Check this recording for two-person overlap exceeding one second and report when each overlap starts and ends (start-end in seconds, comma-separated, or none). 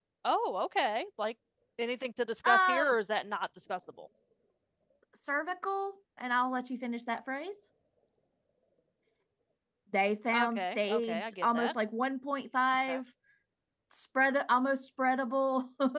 10.3-11.7